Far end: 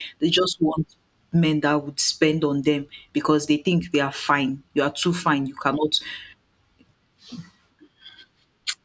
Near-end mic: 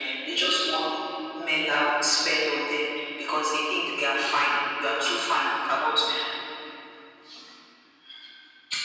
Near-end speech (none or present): none